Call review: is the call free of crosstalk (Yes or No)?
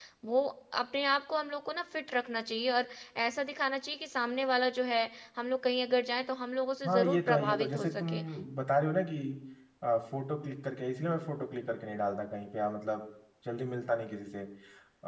No